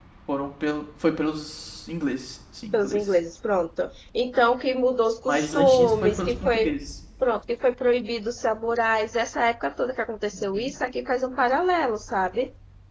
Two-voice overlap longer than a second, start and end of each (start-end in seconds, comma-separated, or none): 5.3-6.7